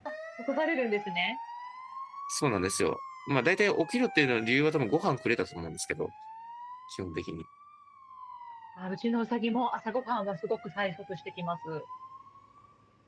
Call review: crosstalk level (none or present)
none